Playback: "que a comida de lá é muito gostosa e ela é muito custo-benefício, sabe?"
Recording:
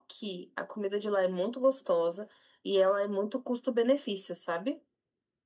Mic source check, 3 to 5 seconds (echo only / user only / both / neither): echo only